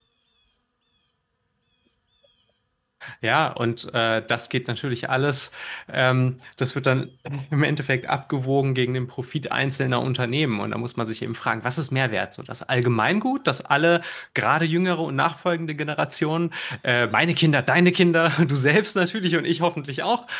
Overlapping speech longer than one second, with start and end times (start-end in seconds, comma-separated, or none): none